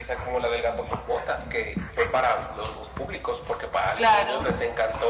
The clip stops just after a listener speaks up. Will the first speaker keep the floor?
Yes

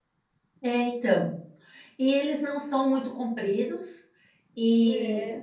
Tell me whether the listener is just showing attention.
Yes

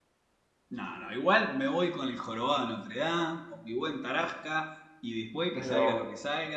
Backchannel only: Yes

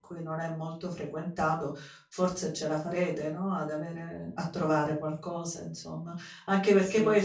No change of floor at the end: Yes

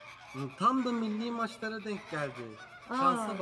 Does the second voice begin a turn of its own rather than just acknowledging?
No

